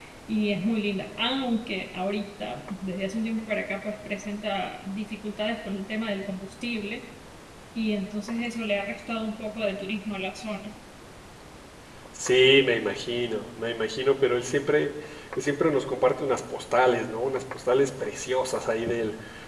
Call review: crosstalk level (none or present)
none